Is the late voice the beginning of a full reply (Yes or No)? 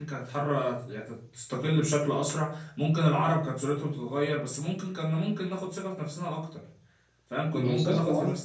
No